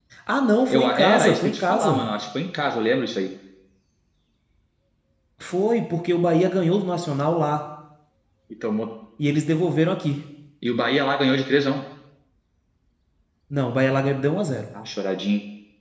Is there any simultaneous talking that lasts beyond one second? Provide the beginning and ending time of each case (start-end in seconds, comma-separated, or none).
0.7-2.0